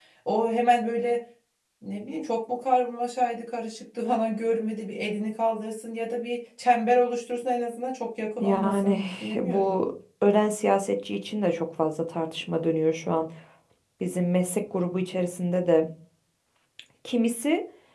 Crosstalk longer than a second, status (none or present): present